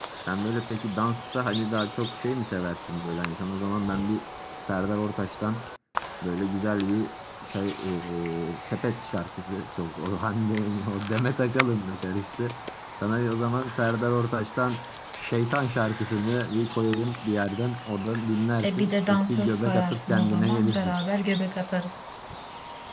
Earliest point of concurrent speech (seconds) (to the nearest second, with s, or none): 19 s